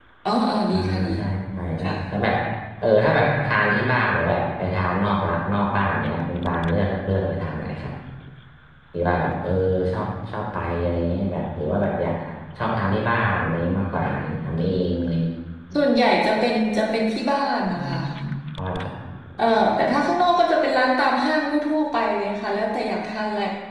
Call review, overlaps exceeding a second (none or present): none